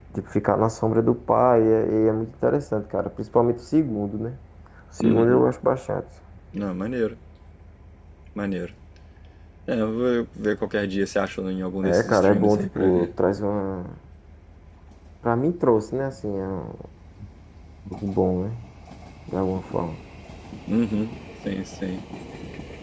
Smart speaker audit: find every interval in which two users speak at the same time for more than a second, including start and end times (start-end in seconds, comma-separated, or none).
11.8-13.1